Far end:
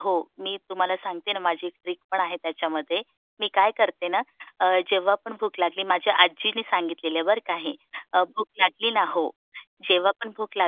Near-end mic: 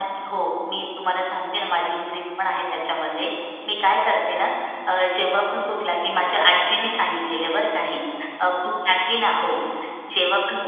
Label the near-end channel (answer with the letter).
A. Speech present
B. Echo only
B